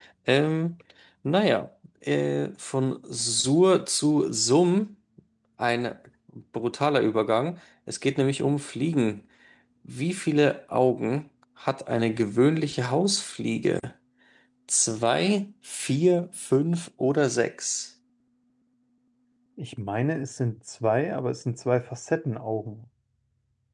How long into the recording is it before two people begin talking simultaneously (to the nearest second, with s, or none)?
none